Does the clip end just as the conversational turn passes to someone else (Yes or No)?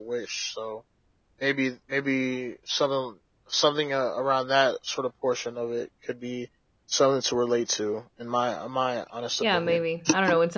Yes